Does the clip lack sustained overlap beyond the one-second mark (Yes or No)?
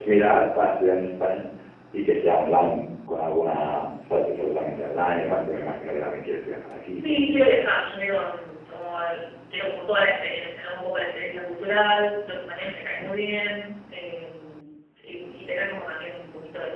Yes